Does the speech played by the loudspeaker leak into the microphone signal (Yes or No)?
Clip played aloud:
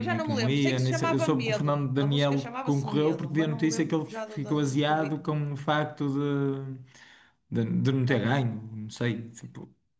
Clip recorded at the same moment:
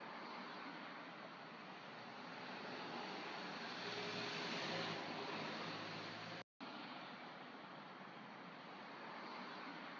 No